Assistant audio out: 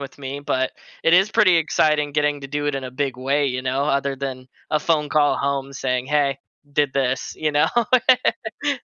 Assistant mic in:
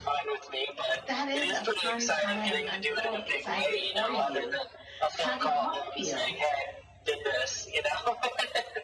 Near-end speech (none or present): present